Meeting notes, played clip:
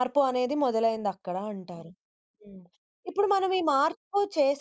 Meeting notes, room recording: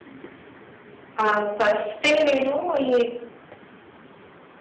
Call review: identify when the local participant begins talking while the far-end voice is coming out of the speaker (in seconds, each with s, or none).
1.2 s